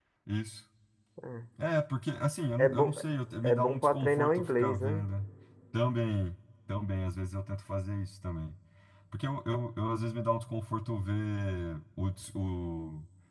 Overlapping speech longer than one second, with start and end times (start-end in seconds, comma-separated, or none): 3.4-5.1